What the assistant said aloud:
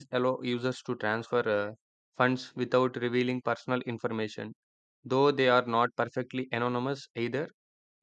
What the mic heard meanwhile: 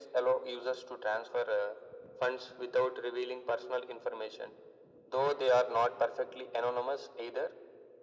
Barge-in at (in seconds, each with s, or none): none